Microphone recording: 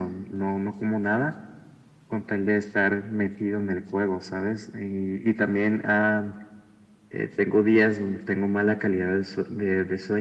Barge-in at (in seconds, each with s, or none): none